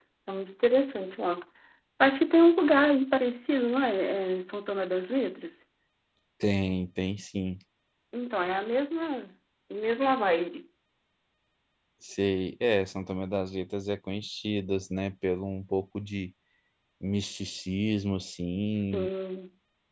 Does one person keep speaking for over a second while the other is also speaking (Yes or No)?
No